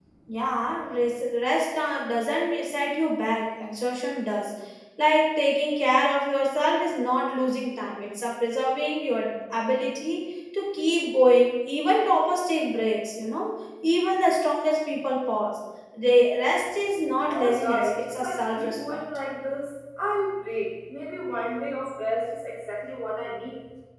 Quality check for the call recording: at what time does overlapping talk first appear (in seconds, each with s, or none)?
17.2 s